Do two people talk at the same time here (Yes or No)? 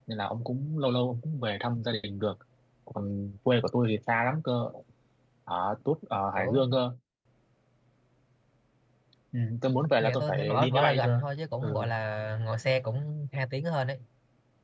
Yes